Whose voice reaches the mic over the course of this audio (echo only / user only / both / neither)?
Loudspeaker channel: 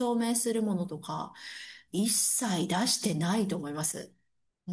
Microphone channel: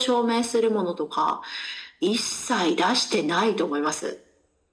echo only